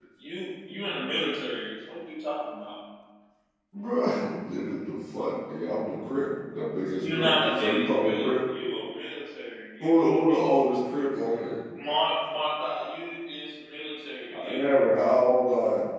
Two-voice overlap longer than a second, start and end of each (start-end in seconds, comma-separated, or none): 7.0-8.3